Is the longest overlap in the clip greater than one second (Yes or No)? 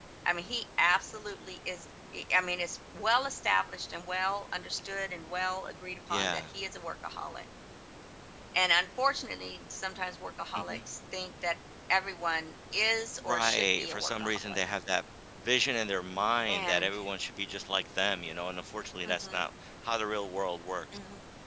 Yes